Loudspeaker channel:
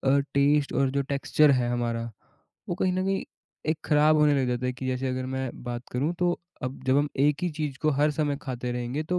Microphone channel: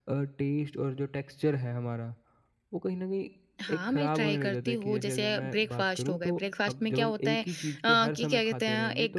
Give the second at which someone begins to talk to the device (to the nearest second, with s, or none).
4 s